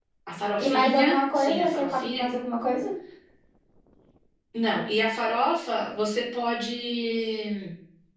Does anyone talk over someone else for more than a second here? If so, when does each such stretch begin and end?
0.6-2.2

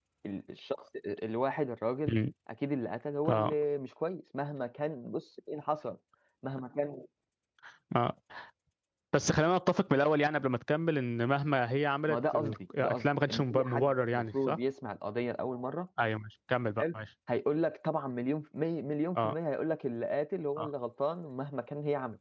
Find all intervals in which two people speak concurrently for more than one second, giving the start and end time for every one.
12.1-14.6

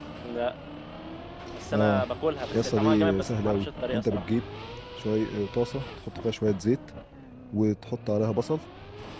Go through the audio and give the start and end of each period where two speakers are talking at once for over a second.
2.5-4.2

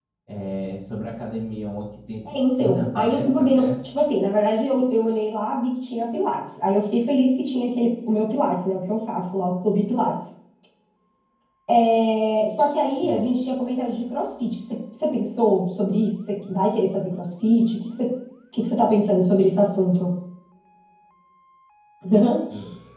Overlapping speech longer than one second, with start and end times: 2.3-3.7

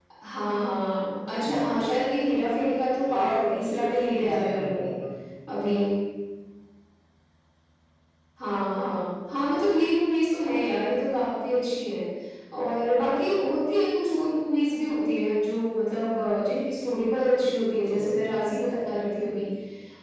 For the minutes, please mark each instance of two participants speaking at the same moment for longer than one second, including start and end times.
3.1-4.9

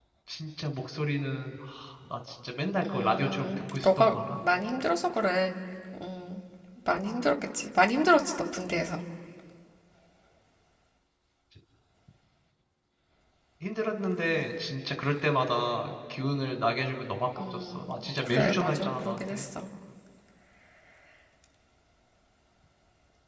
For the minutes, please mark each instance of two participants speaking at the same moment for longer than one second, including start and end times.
2.8-4.4, 17.5-19.5

